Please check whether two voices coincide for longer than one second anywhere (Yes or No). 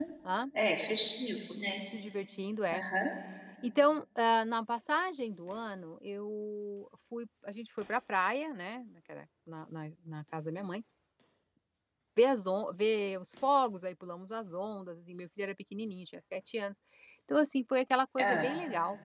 No